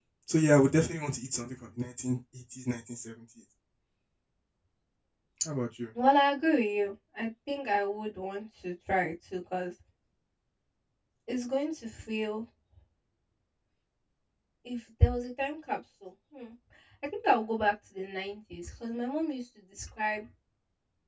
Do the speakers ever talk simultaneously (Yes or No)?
No